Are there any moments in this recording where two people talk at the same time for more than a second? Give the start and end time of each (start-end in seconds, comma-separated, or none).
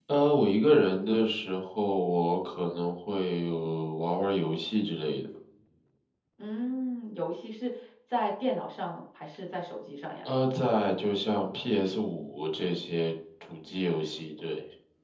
none